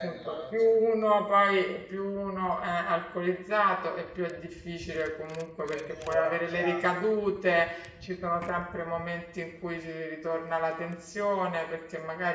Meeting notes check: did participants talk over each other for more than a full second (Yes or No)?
Yes